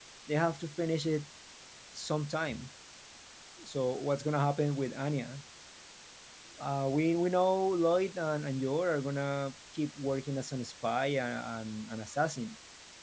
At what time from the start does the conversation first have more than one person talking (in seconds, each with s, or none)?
none